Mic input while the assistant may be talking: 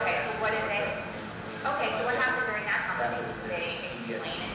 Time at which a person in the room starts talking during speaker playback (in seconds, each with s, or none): none